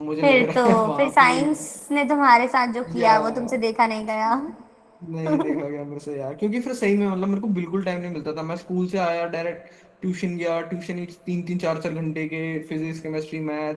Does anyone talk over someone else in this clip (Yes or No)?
Yes